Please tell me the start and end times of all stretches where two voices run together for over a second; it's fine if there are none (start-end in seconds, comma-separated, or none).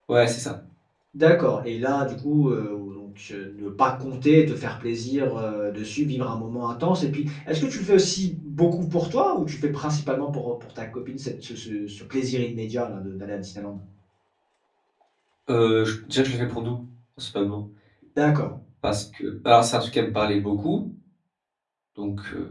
none